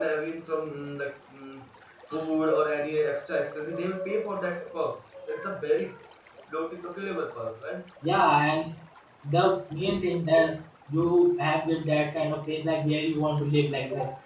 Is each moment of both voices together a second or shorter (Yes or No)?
Yes